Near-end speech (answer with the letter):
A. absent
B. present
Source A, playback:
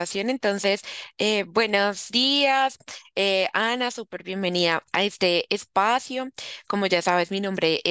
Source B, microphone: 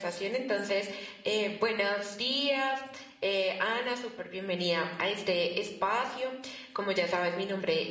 A